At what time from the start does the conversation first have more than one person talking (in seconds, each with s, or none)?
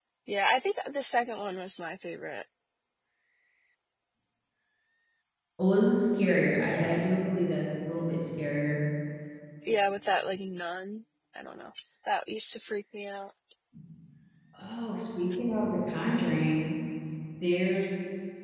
none